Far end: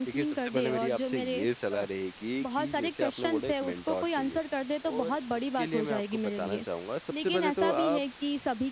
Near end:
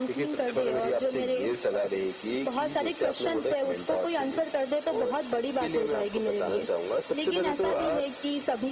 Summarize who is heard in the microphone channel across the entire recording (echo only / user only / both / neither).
echo only